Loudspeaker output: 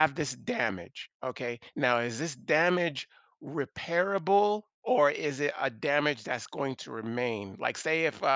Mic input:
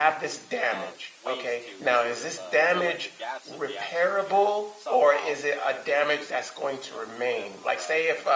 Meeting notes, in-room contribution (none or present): present